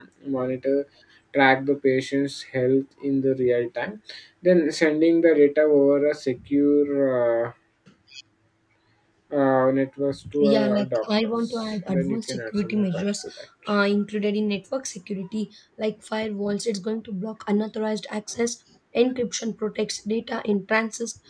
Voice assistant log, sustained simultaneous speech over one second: present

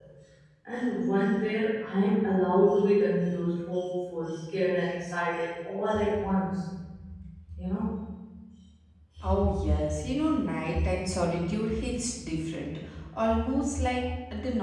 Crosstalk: none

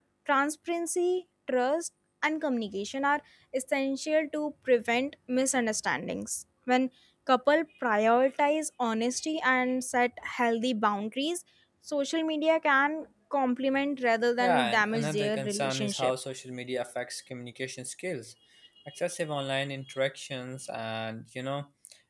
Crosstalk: present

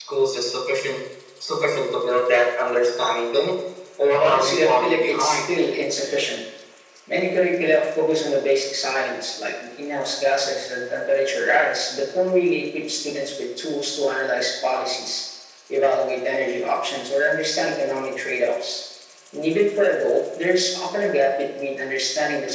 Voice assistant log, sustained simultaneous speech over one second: present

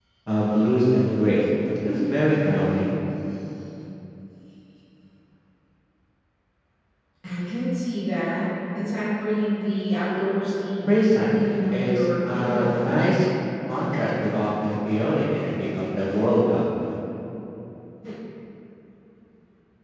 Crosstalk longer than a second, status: present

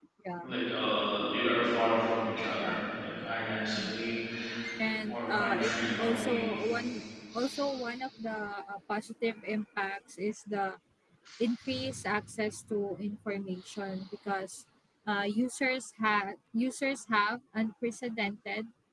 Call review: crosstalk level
present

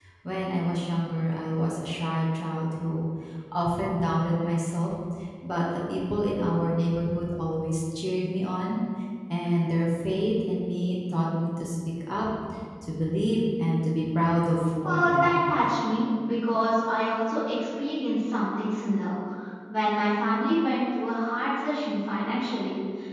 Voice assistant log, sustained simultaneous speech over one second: none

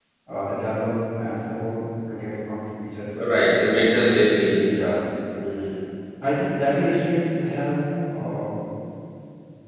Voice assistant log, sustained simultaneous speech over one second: none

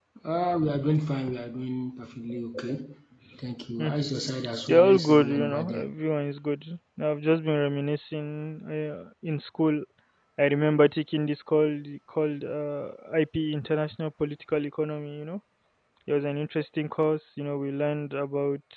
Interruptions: present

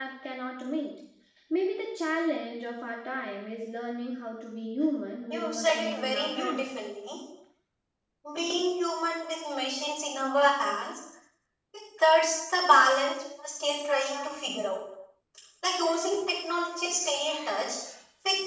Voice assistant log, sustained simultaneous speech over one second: present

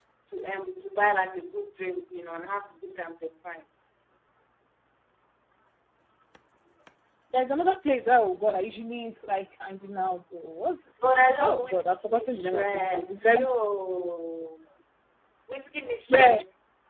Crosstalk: present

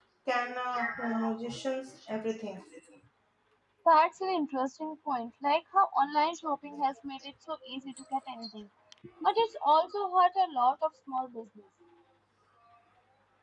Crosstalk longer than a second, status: none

